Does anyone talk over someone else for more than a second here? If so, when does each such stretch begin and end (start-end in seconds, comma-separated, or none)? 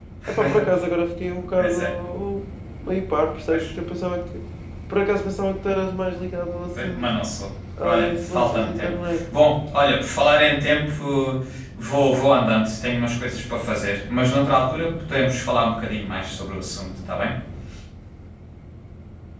7.8-9.2